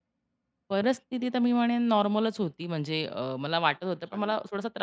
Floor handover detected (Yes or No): No